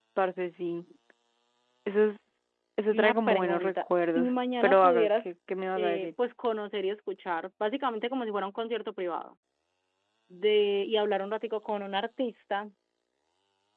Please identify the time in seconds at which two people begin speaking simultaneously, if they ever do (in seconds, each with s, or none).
2.9 s